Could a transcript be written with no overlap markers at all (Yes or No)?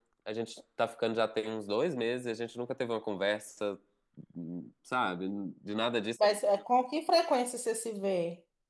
Yes